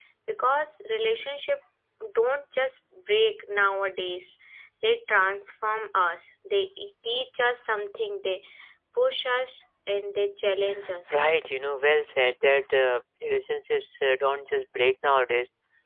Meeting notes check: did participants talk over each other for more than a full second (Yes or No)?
No